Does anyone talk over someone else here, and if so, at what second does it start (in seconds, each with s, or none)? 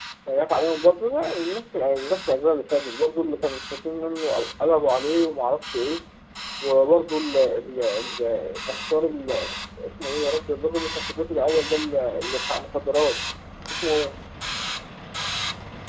none